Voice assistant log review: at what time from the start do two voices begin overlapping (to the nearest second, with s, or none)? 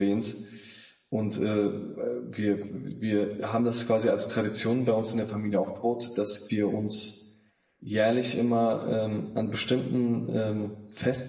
none